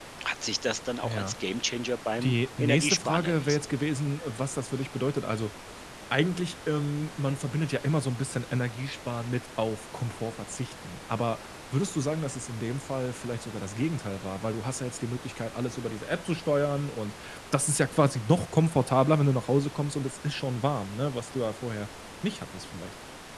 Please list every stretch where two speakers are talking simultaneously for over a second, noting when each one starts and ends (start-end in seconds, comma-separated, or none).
2.2-3.7